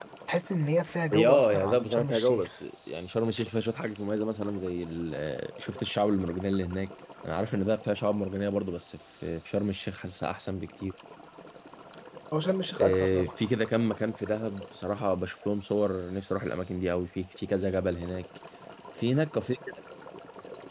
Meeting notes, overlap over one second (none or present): present